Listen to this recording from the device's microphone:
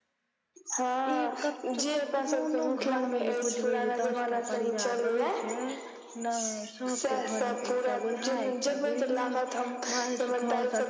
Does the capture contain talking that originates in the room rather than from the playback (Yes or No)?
Yes